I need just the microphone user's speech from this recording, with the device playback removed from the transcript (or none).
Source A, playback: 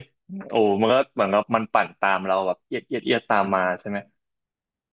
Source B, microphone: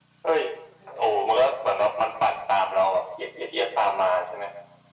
none